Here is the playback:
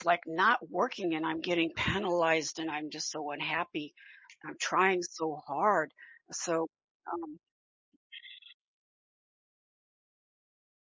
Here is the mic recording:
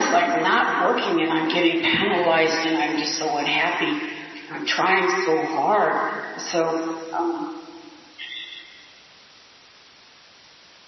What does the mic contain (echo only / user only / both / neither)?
echo only